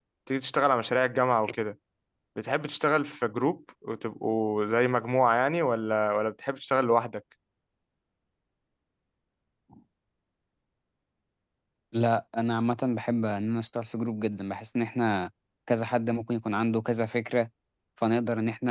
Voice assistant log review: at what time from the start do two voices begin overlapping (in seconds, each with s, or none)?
none